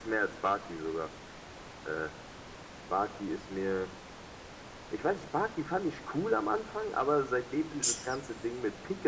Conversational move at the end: listening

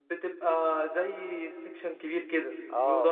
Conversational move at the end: taking over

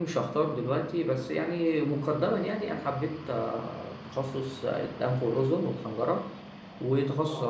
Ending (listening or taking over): listening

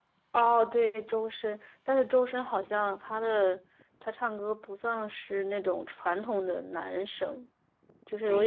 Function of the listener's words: taking over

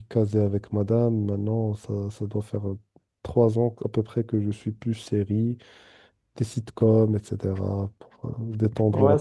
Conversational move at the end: taking over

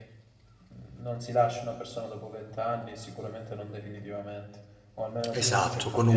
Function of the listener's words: taking over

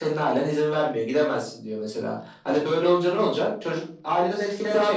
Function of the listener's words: taking over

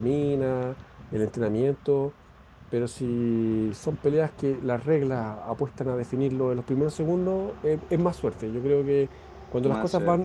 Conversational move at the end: listening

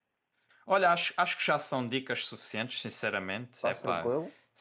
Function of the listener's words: listening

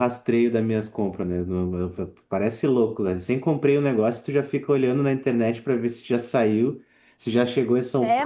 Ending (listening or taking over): taking over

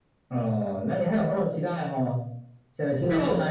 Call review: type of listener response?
listening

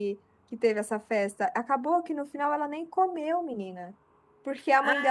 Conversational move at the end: listening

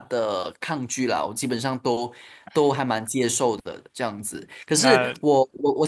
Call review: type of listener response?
listening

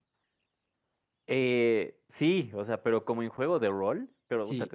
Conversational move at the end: listening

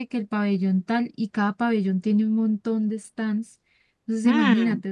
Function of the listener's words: listening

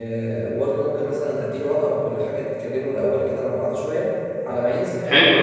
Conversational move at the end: taking over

